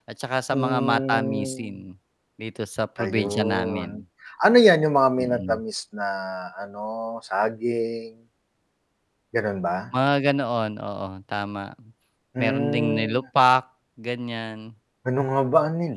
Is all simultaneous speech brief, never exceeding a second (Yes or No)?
No